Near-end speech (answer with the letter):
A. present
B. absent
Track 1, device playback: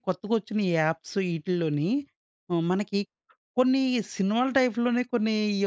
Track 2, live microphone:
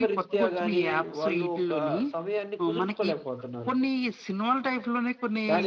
A